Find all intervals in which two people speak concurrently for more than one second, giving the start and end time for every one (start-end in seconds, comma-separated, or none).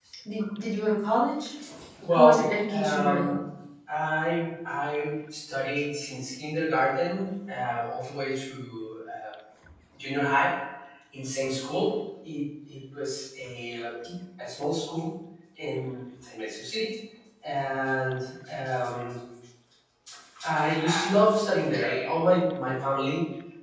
2.1-3.4